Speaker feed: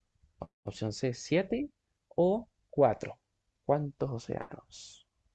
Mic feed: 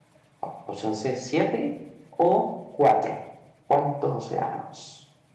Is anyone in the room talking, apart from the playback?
No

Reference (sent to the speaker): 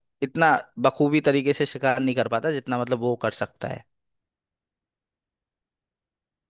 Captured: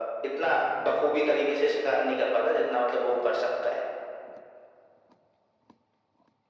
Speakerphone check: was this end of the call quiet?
Yes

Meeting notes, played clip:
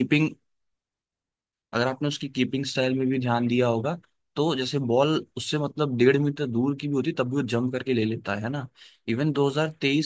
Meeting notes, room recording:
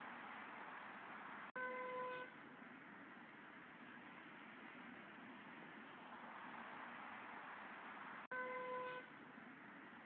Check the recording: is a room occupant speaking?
No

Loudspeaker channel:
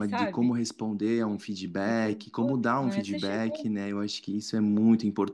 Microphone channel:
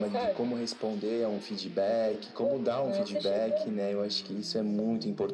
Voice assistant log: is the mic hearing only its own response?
Yes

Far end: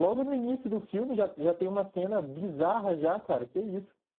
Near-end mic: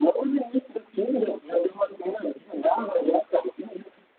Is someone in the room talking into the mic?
No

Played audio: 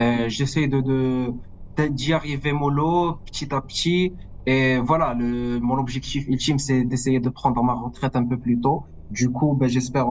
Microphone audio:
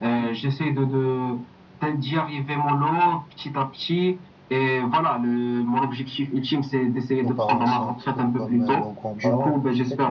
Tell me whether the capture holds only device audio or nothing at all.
No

